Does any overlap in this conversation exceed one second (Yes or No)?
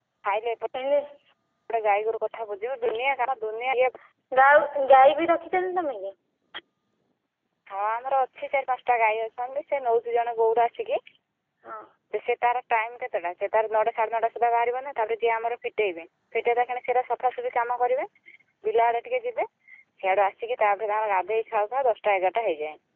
No